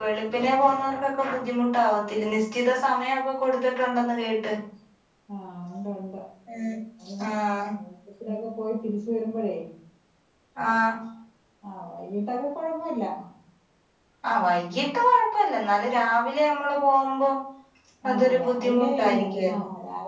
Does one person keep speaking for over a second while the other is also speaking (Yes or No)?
Yes